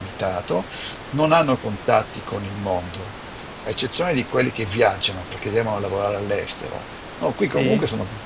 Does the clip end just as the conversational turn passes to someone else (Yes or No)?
No